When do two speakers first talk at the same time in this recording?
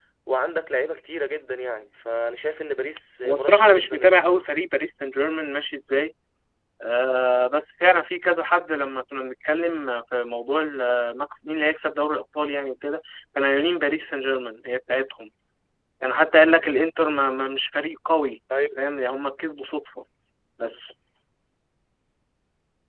3.2 s

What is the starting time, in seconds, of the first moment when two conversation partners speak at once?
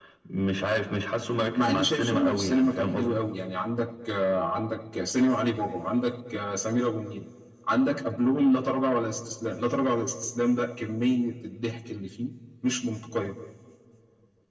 1.6 s

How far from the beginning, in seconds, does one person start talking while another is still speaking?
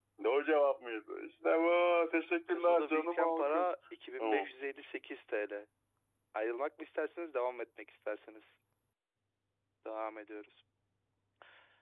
2.5 s

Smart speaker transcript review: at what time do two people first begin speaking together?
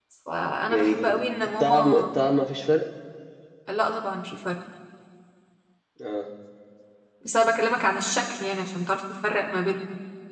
0.7 s

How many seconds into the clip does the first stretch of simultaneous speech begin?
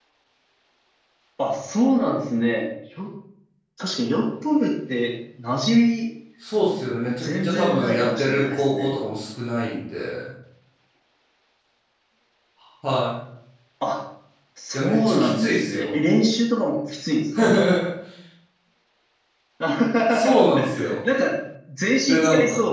7.2 s

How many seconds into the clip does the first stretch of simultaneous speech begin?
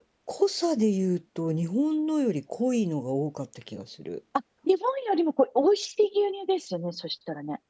none

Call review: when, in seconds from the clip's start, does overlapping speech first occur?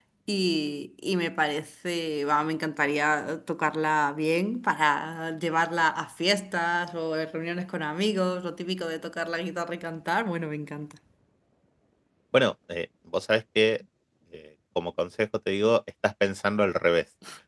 none

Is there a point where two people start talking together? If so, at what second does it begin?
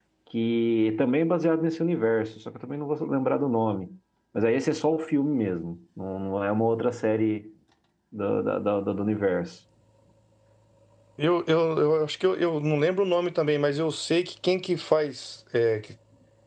none

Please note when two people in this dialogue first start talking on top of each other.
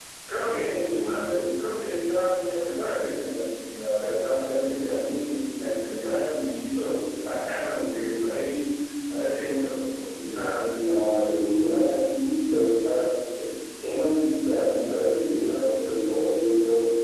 10.2 s

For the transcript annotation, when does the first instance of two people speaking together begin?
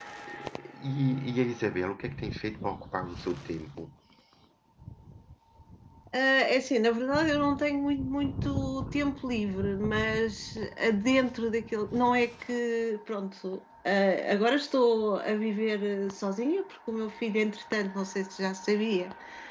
none

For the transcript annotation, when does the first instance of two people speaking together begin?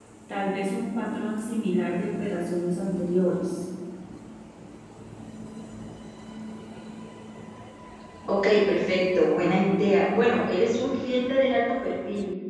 none

